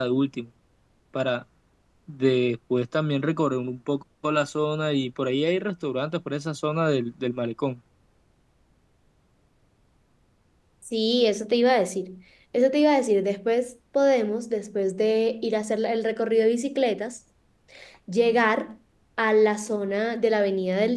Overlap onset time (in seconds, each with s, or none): none